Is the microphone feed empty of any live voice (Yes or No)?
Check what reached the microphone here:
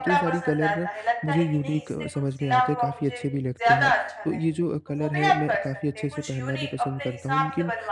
No